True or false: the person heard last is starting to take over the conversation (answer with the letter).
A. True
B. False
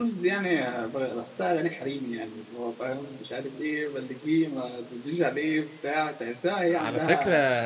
A